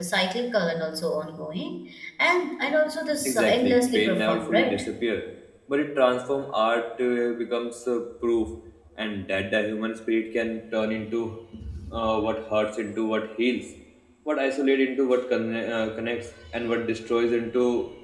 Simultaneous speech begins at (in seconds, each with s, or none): 3.2 s